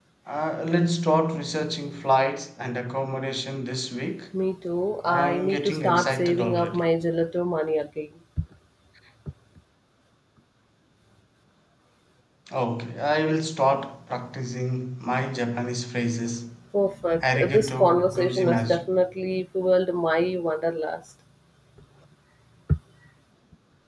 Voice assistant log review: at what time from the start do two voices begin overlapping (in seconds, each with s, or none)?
5.1 s